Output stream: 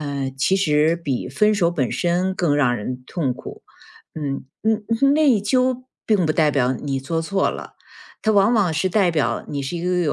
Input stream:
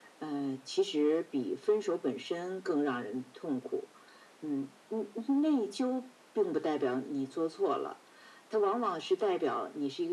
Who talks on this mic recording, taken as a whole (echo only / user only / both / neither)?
echo only